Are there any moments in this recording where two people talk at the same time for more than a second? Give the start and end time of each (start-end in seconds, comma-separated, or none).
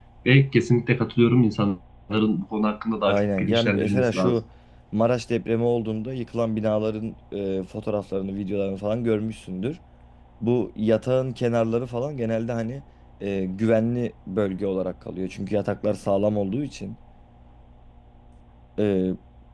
3.1-4.4